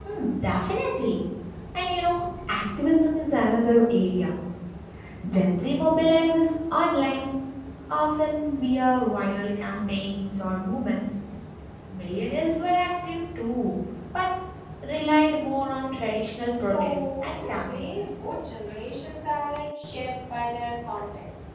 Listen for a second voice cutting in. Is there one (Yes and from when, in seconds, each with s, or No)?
Yes, from 16.6 s